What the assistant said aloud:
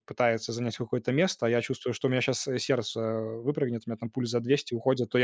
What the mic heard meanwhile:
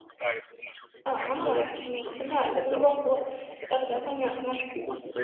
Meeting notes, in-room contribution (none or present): present